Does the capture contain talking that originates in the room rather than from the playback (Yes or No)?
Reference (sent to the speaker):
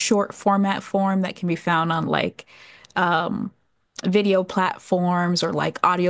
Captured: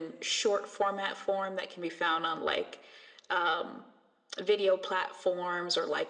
No